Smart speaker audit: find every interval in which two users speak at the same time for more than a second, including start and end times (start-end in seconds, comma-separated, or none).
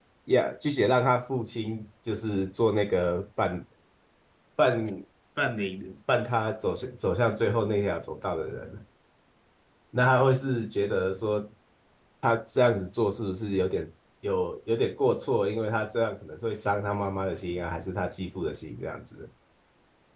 none